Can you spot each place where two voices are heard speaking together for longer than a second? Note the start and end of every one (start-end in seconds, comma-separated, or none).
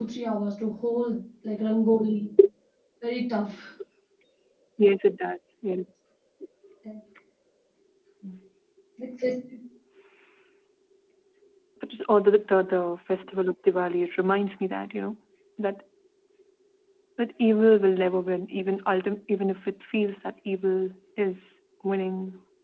none